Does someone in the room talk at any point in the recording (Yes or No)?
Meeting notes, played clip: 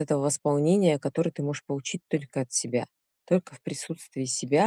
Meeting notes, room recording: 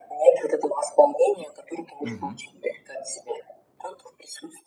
Yes